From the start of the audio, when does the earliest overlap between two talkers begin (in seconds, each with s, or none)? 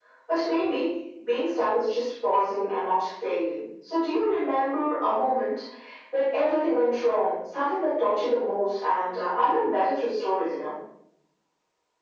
none